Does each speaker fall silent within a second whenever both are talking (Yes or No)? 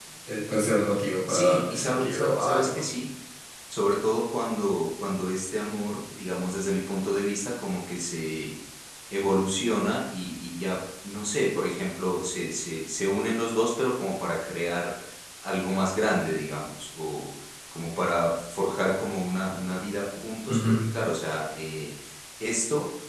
No